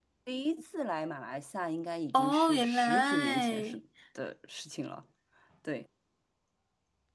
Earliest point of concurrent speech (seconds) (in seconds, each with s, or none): 2.1 s